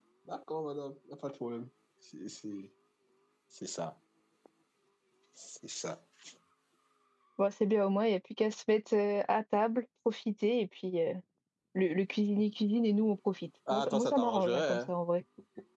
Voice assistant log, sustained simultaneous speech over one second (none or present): present